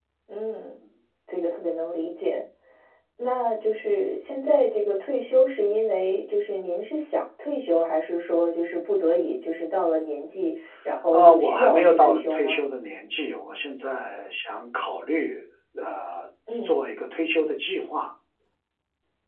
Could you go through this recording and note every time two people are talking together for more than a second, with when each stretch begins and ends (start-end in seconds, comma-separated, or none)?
11.1-12.6